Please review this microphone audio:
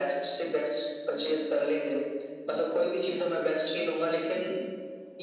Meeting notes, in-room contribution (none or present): none